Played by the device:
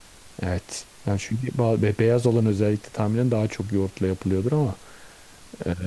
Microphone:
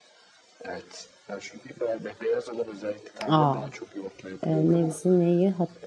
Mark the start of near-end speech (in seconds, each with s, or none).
3.3 s